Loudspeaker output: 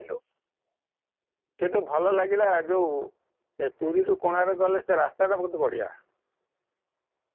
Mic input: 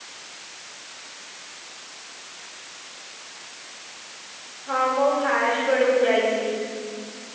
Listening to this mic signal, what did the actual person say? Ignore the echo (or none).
ହଁ ମୁଁ ଫାଷ୍ଟ ବେଳକୁ ଯାଇଥିଲି।